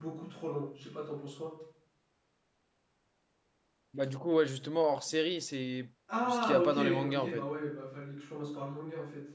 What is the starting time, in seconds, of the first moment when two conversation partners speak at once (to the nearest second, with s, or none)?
6 s